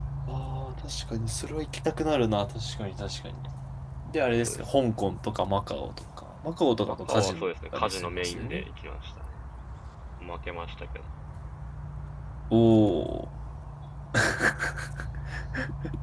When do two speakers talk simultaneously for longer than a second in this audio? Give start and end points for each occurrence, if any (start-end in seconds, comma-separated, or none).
6.9-8.6